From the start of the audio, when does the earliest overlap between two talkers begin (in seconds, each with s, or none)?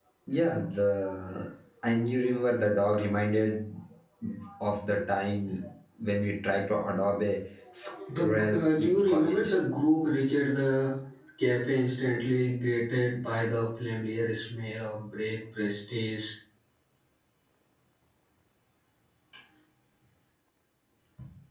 8.0 s